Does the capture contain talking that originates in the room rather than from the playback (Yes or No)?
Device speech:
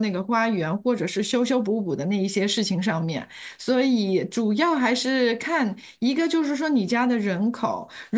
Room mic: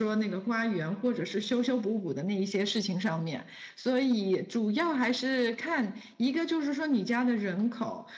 No